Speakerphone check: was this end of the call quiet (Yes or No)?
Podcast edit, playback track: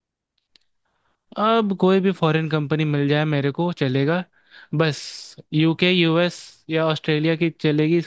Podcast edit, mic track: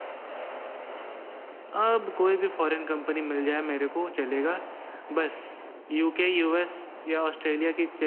Yes